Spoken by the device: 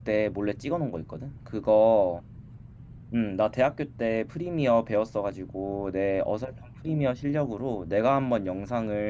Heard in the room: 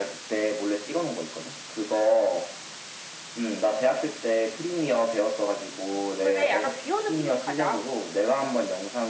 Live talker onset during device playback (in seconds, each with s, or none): 6.2 s